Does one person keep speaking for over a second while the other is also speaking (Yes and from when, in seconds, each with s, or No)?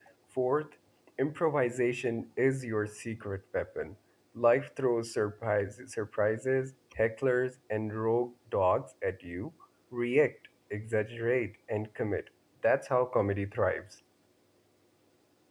No